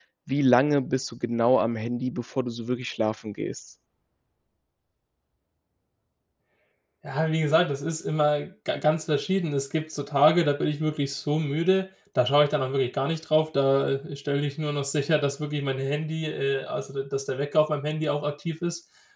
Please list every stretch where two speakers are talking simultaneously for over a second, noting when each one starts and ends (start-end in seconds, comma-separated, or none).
none